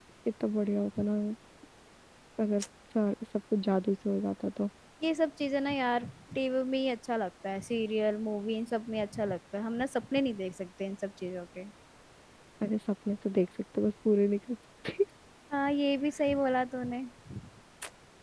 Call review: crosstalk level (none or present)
none